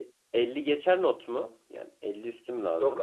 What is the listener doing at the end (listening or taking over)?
taking over